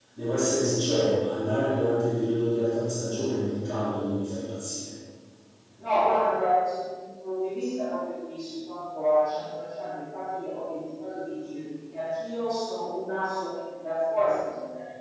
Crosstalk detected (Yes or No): No